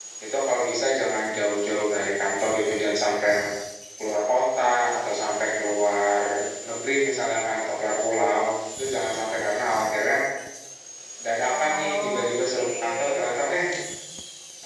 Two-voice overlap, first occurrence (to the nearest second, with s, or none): 11 s